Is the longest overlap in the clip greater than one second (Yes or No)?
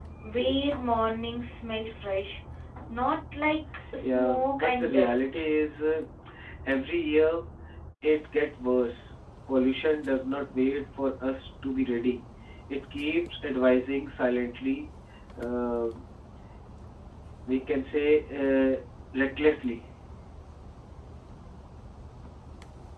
Yes